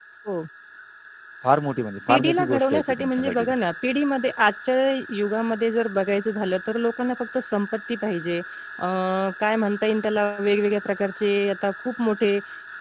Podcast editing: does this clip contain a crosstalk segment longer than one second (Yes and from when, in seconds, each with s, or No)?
Yes, from 2.1 s